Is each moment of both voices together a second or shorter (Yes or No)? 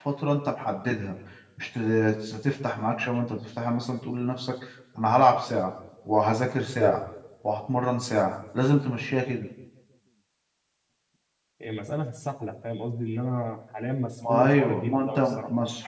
No